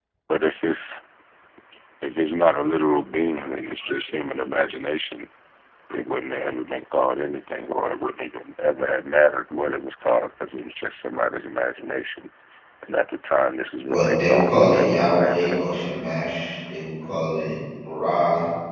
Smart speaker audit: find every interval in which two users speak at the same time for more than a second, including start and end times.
13.9-15.6

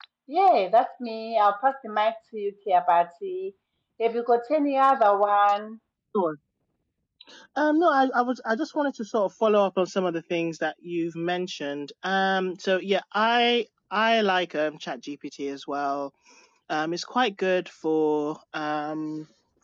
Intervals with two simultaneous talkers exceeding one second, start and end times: none

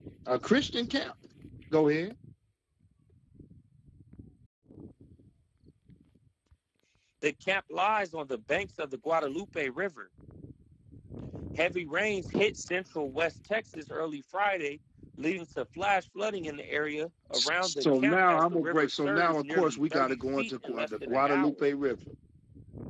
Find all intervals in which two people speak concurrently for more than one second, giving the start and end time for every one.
17.3-21.6

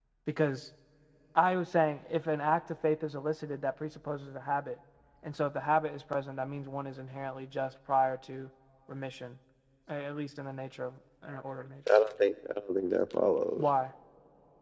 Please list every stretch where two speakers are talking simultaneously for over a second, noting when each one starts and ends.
none

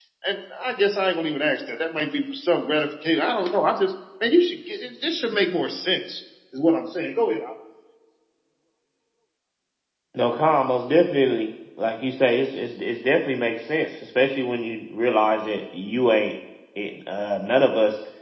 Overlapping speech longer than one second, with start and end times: none

